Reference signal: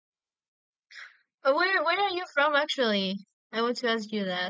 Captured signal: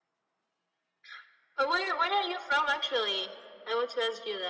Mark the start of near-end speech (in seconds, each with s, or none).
none